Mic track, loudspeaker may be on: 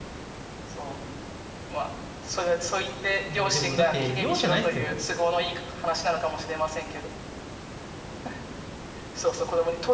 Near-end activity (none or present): present